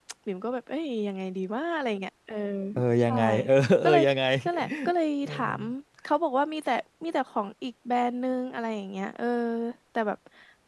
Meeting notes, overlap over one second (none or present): none